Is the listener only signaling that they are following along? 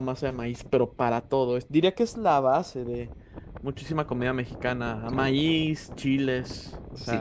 No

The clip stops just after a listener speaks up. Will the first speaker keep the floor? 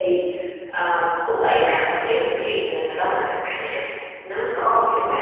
No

